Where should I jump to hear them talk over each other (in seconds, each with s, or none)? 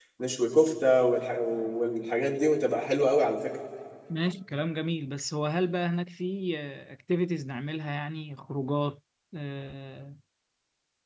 none